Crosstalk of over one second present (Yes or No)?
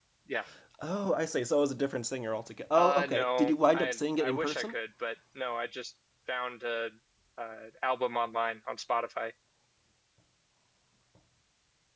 Yes